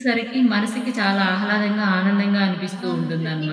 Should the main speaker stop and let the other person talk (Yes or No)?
Yes